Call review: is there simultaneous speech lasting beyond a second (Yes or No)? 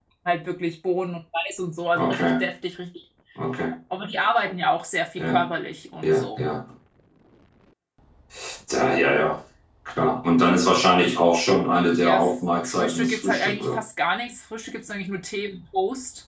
Yes